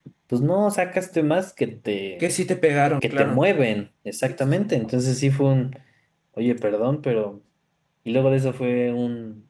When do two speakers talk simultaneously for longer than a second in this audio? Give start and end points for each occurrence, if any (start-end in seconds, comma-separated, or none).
none